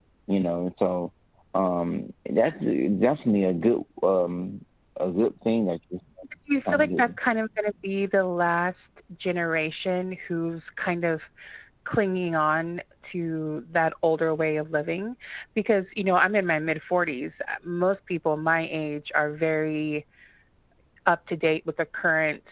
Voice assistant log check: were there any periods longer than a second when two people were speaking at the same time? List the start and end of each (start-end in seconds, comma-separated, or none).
none